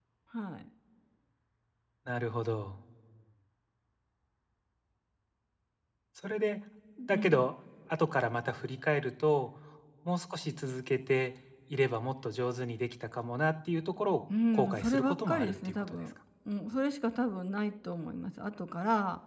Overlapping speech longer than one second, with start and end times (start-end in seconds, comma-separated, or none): 14.5-16.0